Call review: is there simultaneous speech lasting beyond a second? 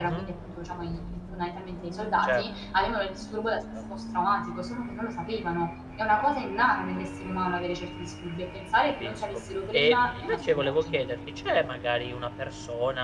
Yes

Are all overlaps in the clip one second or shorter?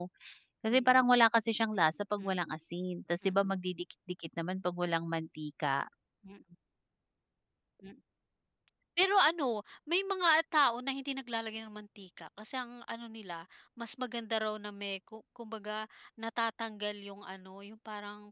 Yes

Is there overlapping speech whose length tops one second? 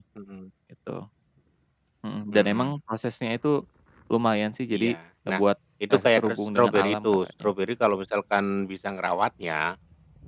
Yes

